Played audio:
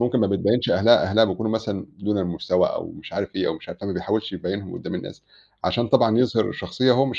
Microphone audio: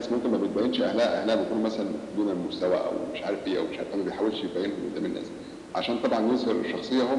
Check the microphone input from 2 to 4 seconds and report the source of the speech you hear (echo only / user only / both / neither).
echo only